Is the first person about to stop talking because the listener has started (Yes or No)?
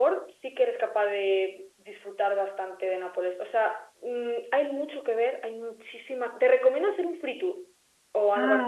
No